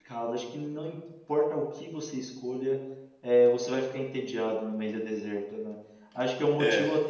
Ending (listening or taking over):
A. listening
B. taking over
A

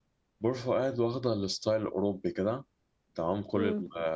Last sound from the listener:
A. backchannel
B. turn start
A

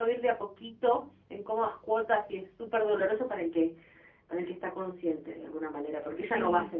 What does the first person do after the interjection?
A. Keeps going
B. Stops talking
A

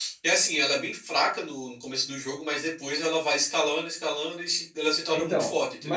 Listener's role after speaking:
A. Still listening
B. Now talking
B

